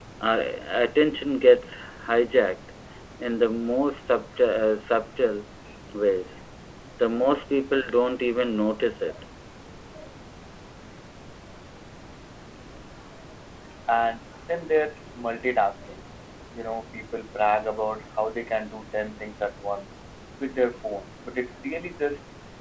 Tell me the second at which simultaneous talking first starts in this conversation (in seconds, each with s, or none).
none